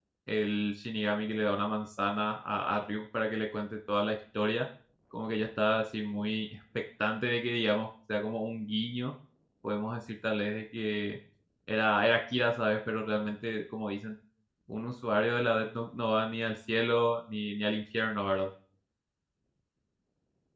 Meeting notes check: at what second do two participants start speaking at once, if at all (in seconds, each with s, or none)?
none